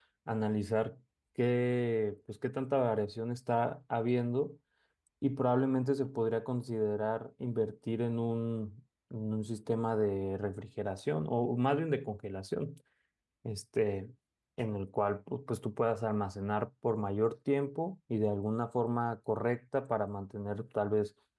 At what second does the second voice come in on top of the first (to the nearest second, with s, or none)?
none